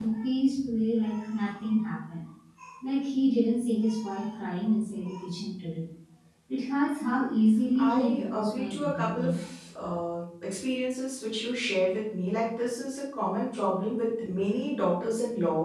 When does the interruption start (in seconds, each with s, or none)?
7.8 s